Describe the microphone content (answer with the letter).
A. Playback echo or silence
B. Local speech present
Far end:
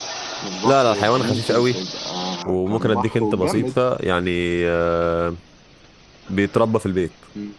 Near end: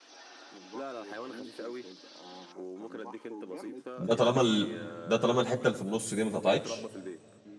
B